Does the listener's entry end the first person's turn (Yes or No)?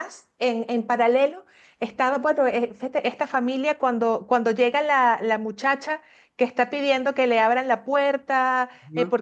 No